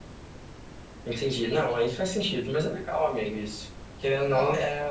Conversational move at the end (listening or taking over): listening